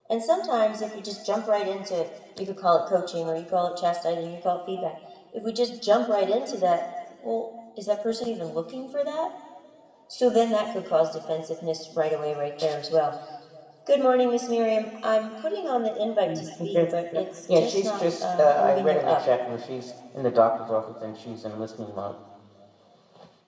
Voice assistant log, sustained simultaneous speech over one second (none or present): present